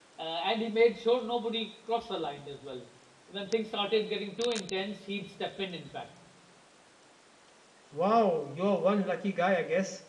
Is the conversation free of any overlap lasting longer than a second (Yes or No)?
Yes